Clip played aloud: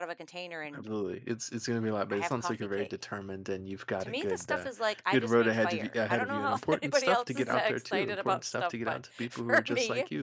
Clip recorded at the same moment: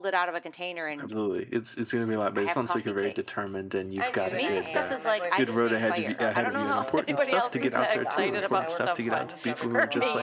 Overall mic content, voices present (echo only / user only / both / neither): both